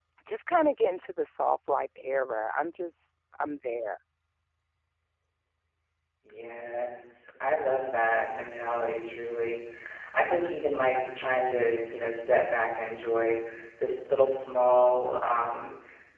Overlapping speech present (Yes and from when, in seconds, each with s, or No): No